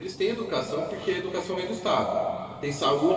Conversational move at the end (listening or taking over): listening